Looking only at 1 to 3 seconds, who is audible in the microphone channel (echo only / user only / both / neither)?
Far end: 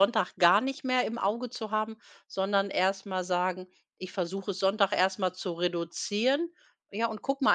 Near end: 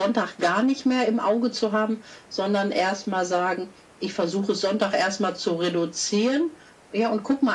echo only